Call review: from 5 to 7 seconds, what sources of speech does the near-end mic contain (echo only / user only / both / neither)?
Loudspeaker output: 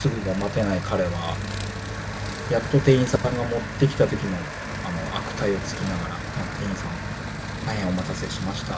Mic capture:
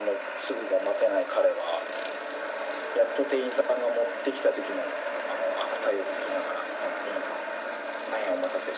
echo only